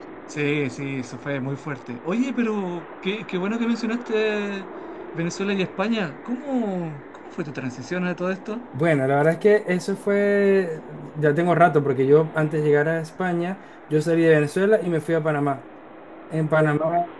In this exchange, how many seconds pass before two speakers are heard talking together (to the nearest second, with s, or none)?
none